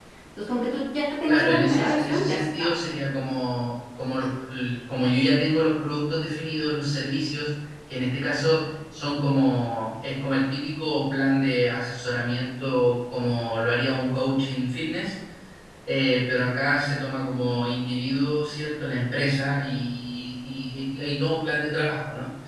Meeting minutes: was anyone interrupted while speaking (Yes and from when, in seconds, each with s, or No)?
Yes, from 1.3 s